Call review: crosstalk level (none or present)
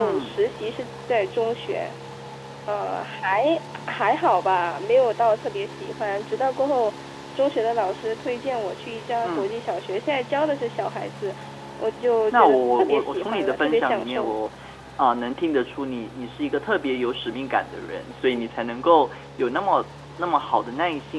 present